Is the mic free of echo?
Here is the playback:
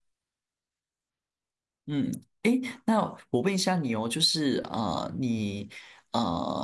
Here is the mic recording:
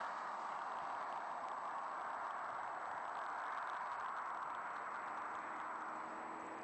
Yes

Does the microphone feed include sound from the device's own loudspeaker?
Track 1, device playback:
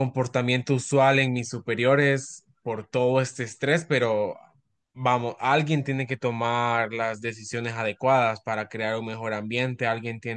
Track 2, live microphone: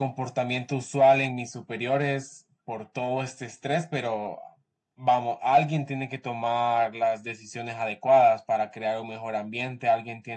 Yes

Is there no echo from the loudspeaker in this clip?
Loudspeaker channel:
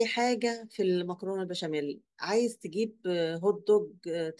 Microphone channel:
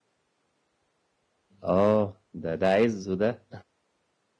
Yes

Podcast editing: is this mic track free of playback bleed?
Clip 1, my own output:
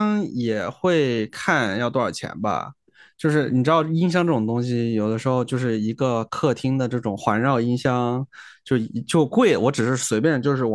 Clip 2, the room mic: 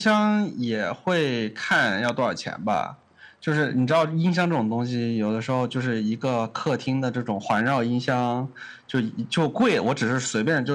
No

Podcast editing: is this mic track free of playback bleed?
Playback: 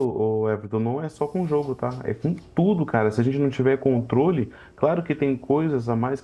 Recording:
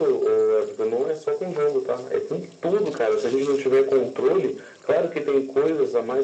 No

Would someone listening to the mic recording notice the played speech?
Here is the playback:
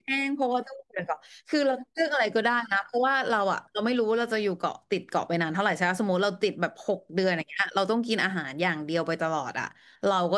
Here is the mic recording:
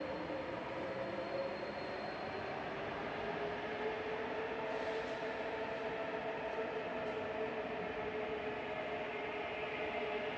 No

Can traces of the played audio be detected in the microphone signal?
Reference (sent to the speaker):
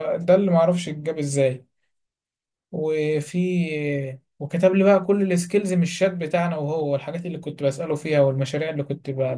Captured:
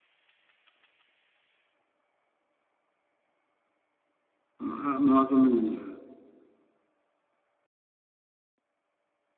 No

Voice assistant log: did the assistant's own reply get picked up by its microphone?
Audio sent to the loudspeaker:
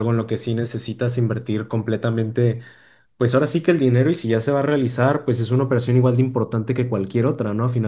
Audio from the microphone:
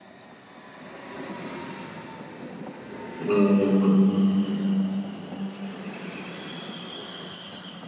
No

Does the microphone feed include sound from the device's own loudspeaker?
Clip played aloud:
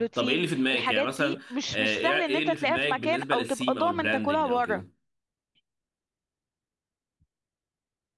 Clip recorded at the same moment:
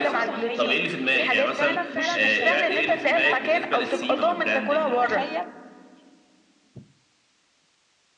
Yes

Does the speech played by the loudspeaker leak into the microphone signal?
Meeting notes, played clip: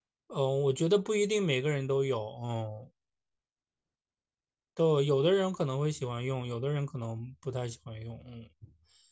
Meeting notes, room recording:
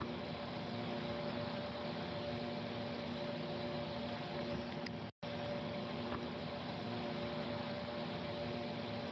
No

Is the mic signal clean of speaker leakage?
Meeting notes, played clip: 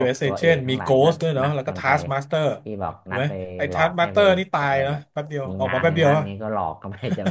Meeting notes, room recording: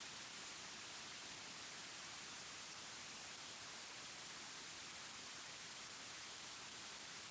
Yes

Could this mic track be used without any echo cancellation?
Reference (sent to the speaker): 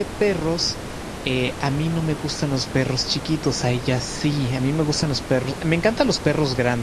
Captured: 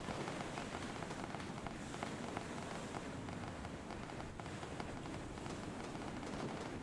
Yes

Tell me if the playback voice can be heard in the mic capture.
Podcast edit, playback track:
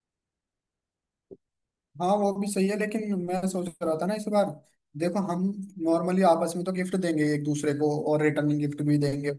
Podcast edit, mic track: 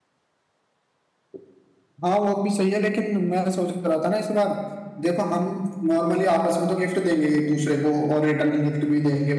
Yes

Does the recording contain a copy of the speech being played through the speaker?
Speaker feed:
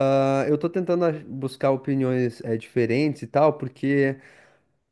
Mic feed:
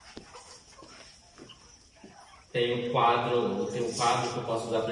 No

